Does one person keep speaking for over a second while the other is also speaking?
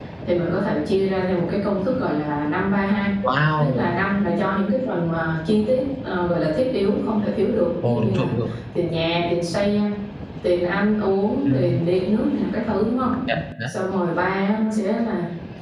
No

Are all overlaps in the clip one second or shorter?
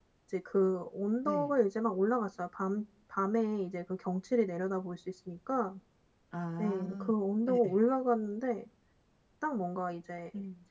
Yes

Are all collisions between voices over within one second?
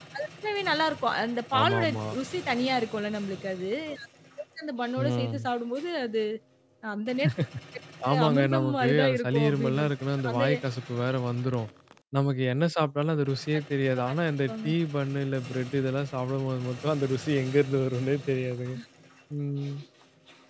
No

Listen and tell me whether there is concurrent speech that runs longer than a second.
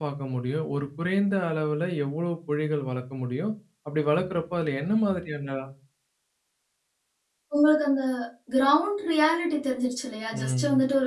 No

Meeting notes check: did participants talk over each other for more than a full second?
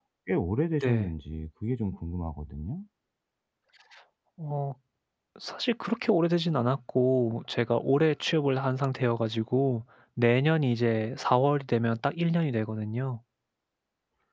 No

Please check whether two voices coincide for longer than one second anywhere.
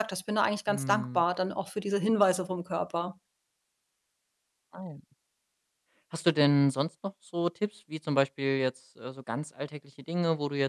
No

